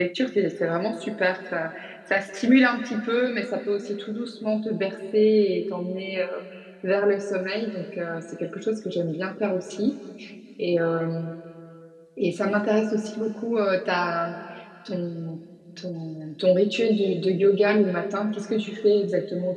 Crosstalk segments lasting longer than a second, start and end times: none

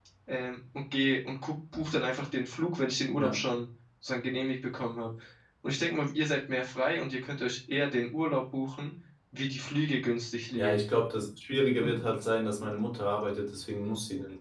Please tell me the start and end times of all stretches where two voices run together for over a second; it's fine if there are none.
none

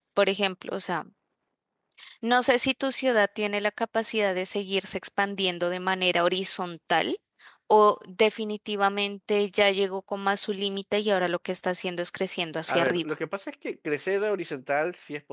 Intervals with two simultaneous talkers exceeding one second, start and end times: none

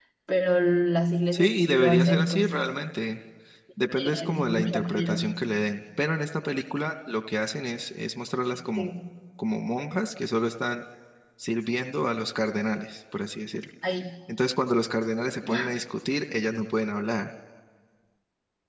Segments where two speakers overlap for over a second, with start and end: 1.3-2.7, 4.0-5.2

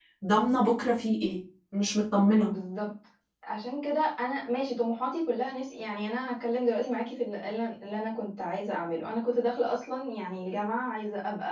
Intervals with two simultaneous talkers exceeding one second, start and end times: none

